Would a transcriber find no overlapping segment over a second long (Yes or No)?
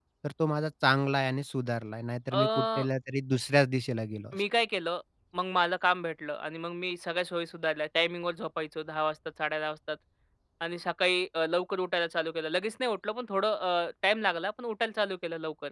Yes